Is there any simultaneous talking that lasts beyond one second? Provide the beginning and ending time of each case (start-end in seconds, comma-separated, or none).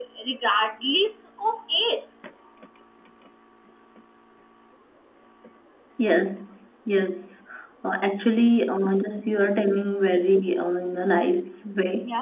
none